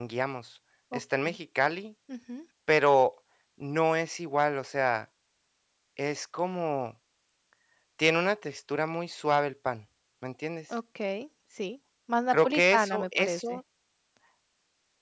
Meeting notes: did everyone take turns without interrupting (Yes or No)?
No